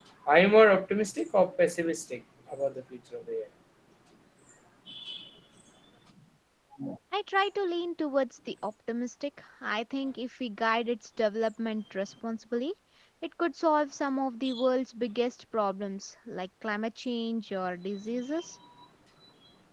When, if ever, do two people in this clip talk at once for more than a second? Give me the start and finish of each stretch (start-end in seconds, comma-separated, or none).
none